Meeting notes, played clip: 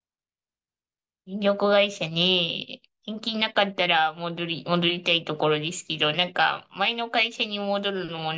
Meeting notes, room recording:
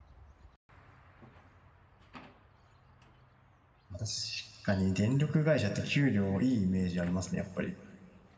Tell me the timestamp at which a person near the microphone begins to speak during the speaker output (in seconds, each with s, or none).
3.9 s